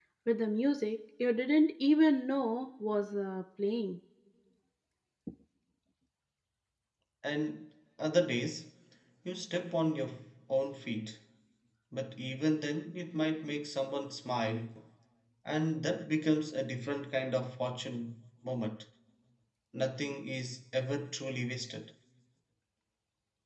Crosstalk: none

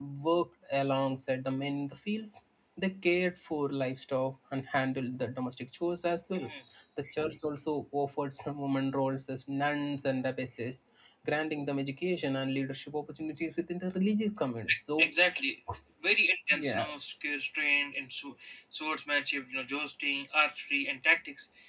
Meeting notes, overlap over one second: none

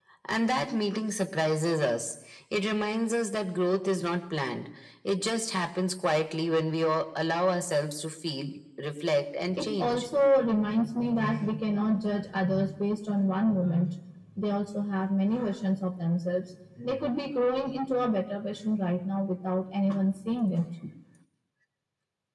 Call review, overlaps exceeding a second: none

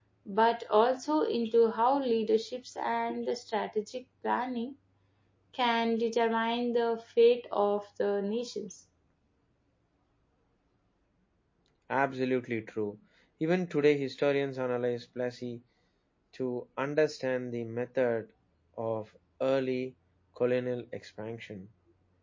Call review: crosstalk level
none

